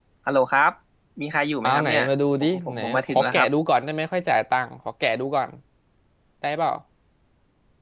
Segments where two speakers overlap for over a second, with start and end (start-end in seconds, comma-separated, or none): 1.6-3.5